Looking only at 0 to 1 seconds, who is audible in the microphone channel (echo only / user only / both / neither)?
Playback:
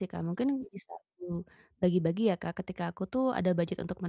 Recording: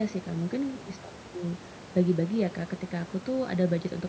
echo only